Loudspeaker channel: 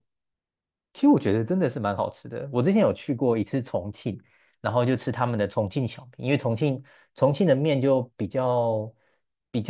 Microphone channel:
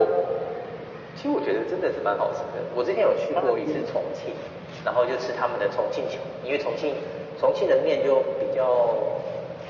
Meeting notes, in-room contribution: present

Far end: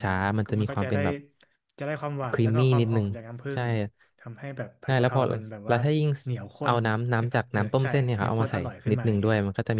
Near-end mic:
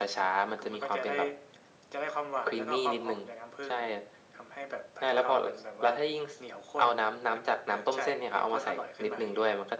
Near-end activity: none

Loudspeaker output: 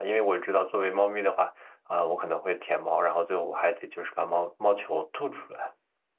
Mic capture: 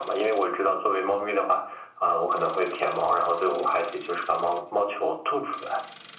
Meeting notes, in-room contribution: none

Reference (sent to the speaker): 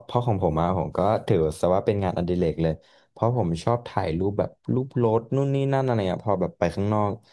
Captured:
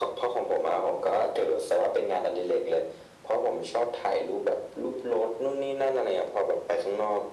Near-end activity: none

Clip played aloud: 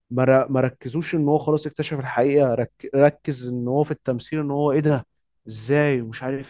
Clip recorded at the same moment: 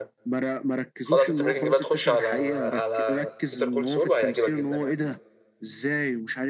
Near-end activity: present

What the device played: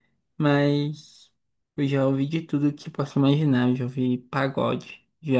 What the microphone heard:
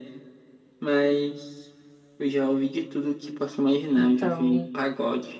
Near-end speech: present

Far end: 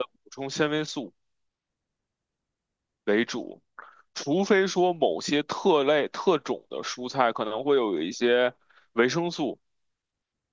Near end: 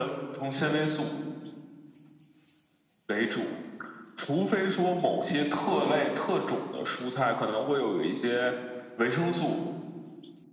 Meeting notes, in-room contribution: none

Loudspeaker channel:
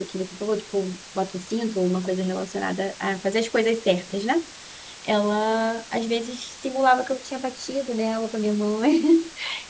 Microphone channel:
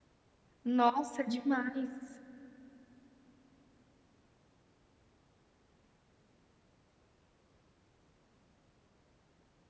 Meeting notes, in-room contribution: present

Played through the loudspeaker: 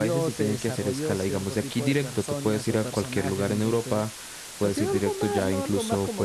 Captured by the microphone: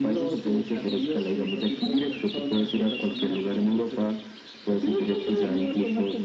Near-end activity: none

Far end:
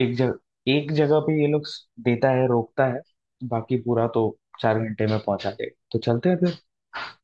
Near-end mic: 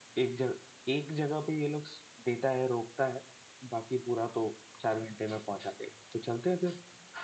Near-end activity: none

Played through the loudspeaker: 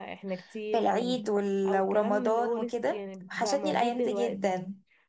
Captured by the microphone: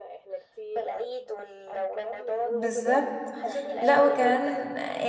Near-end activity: present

